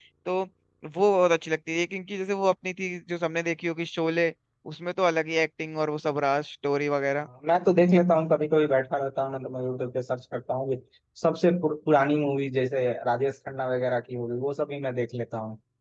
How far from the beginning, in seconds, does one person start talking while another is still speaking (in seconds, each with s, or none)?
none